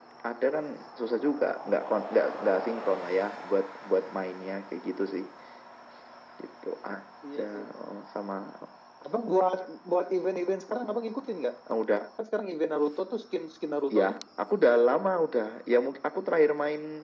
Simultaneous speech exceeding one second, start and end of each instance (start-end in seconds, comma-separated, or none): none